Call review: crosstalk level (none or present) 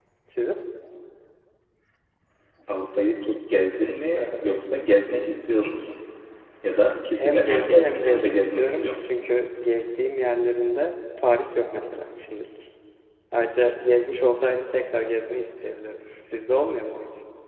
present